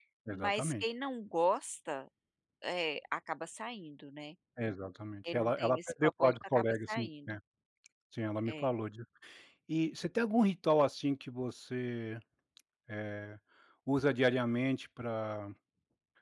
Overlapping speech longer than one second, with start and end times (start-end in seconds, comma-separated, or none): 5.3-7.4